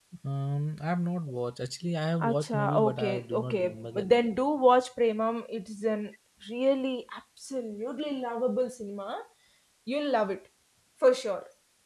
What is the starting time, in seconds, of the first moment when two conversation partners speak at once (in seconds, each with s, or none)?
2.2 s